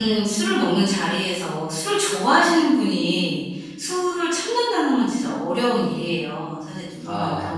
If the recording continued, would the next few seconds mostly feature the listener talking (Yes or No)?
No